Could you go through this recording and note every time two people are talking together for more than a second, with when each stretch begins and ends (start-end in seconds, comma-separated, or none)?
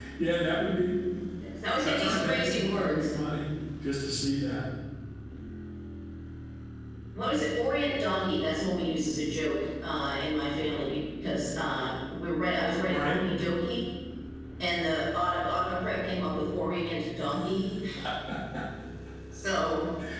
1.8-3.1